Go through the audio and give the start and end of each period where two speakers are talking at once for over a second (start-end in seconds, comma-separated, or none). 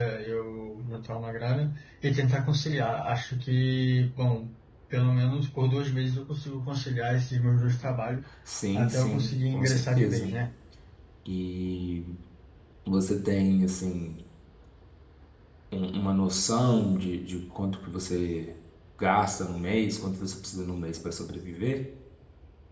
8.8-10.3